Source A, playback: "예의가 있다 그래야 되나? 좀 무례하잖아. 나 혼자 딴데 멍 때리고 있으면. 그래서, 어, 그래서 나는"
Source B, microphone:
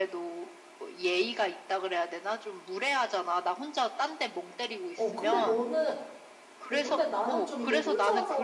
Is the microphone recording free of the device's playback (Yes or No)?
No